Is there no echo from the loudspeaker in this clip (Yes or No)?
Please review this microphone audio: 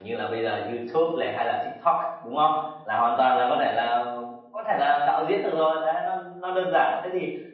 Yes